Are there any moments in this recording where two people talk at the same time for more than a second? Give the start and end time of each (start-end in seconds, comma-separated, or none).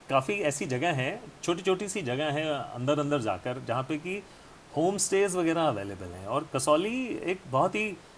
none